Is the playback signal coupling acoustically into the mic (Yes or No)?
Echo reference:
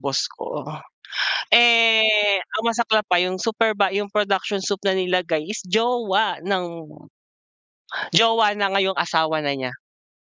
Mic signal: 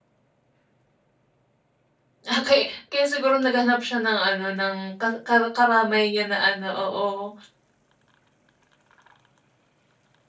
No